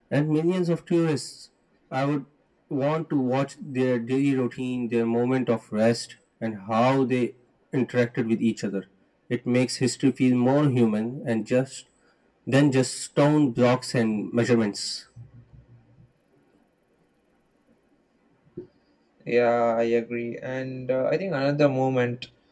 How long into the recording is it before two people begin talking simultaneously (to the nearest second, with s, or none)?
none